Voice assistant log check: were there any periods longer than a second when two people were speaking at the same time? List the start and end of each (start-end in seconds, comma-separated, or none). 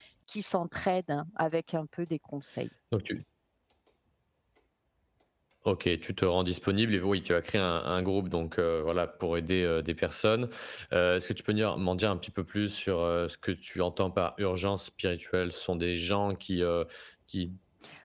none